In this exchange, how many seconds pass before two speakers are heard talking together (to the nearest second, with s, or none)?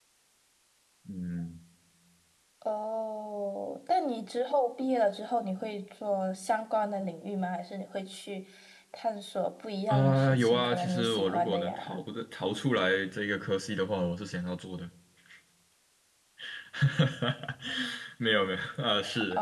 10 s